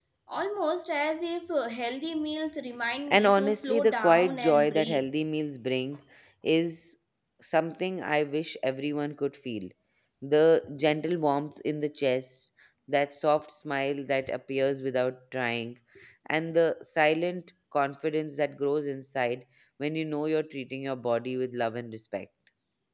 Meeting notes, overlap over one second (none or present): present